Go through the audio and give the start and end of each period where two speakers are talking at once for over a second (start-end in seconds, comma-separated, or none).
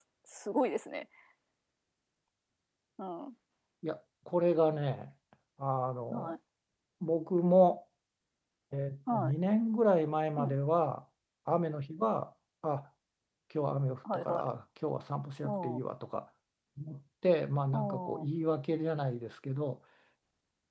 none